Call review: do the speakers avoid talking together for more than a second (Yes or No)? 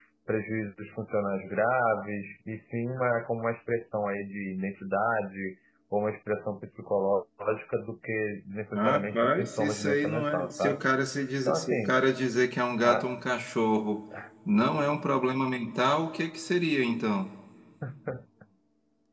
No